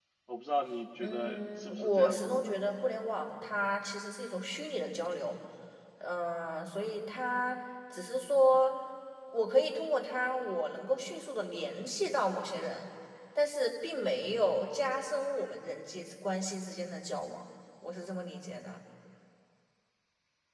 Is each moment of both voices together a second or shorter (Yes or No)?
No